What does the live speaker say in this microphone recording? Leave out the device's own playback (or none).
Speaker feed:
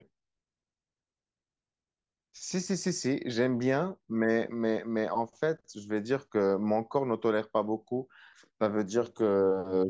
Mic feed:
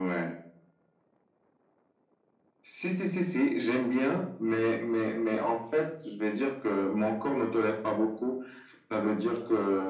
none